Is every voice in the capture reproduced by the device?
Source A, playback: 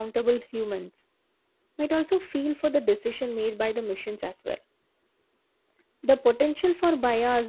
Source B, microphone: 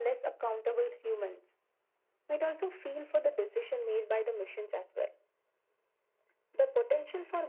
Yes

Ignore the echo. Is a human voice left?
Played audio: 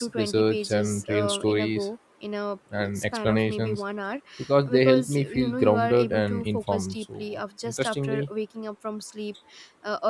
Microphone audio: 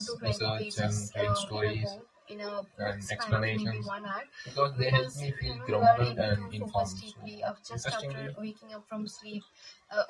No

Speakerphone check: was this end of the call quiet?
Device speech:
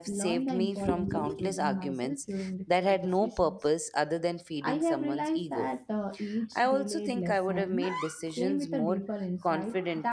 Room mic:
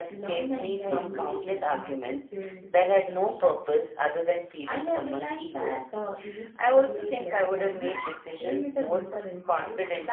Yes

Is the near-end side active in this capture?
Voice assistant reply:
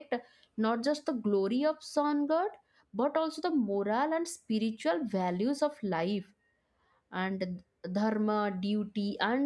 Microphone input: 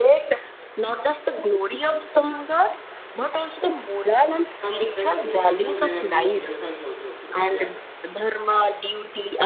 Yes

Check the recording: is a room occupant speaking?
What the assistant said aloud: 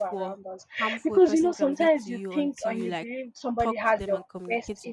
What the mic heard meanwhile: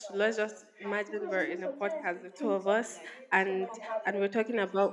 Yes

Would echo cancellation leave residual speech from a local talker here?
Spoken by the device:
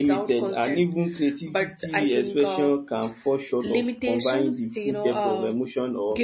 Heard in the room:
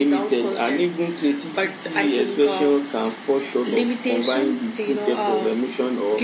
No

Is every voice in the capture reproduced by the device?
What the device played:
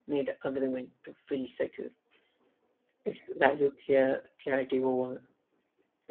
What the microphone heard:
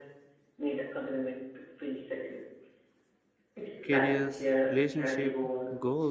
No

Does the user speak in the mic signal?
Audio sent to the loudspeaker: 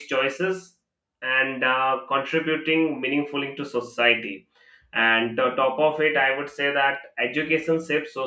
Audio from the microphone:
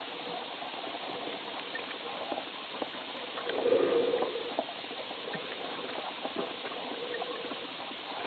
No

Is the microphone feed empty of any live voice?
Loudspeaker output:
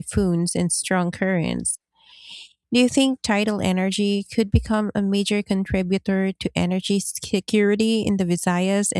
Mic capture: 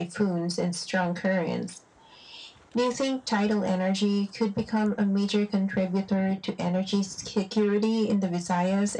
Yes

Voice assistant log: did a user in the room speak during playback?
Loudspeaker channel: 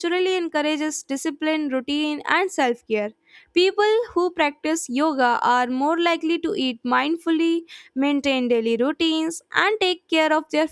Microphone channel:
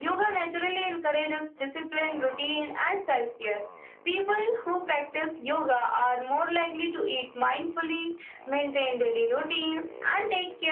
No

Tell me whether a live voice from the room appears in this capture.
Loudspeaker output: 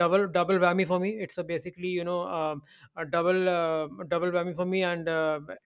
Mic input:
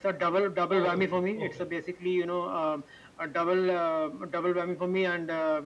Yes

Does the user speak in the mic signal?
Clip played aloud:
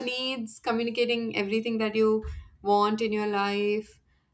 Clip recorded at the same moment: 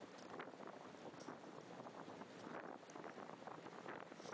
No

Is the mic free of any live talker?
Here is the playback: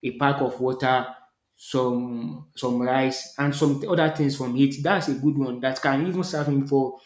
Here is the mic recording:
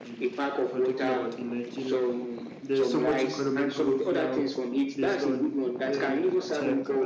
No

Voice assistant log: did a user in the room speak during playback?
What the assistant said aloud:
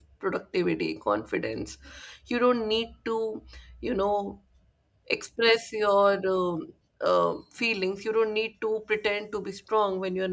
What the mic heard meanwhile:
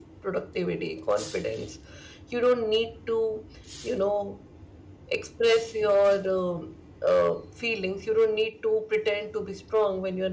No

